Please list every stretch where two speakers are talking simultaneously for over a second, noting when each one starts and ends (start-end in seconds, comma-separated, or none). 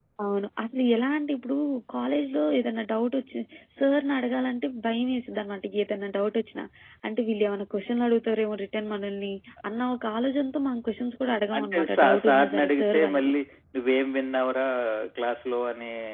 11.6-13.3